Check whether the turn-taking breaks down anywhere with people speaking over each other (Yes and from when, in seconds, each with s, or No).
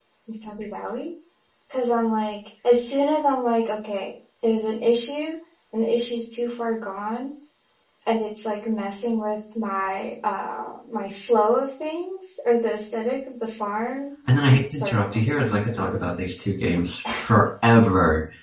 Yes, from 14.7 s